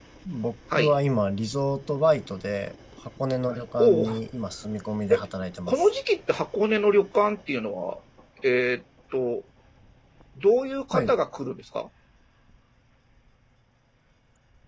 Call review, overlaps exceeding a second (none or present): none